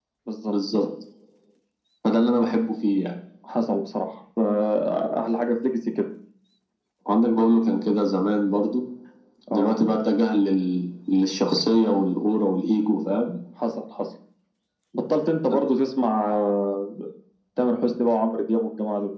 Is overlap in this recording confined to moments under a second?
Yes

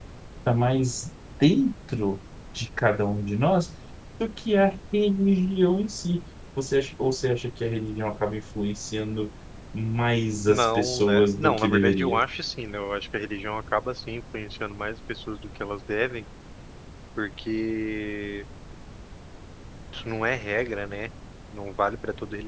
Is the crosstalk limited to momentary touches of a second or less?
No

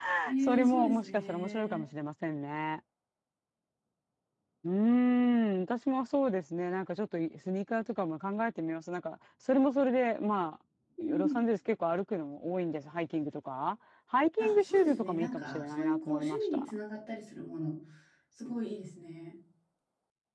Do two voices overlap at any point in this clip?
Yes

